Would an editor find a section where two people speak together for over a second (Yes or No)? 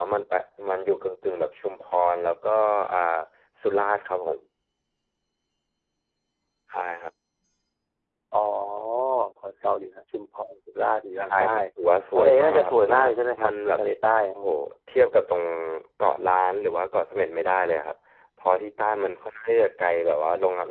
Yes